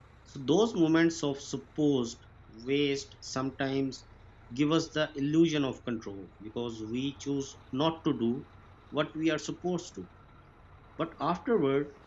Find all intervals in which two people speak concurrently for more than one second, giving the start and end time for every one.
none

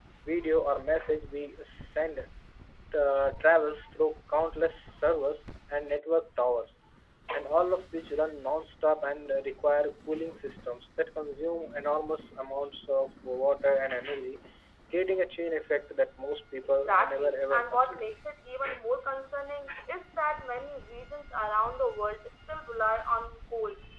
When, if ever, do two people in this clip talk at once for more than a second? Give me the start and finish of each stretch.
16.9-18.1

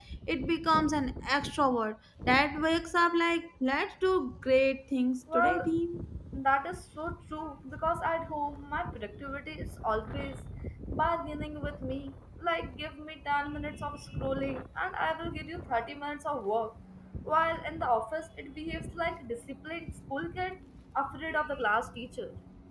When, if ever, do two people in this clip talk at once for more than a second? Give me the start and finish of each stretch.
none

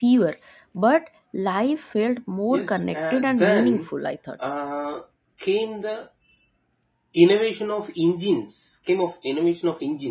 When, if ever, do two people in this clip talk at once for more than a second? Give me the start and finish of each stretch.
2.5-3.8

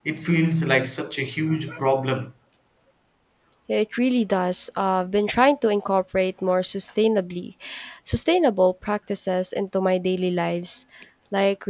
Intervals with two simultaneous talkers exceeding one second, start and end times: none

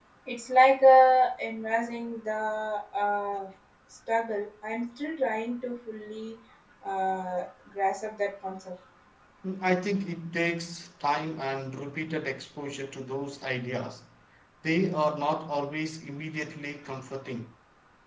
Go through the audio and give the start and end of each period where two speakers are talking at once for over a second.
none

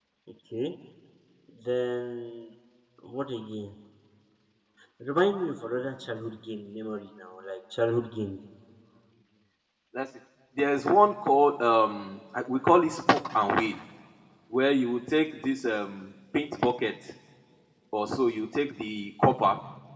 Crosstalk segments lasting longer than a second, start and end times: none

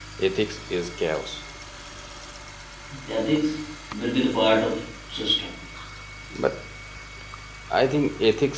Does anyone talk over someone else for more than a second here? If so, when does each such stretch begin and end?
none

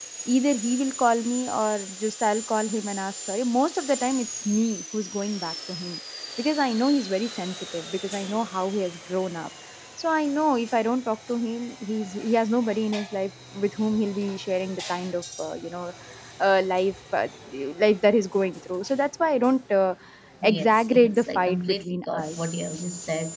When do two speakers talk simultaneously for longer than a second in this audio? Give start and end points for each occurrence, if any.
20.4-22.4

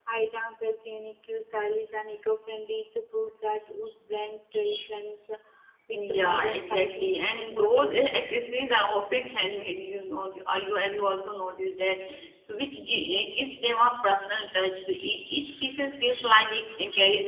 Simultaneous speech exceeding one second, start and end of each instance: 5.9-8.1

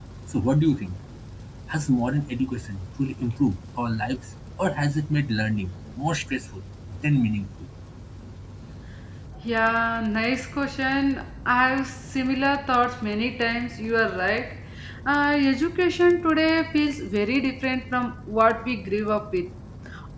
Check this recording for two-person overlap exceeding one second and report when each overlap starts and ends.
none

